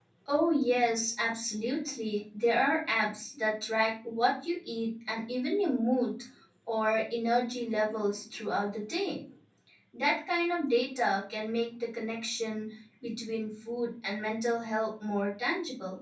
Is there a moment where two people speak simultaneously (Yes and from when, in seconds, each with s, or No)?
No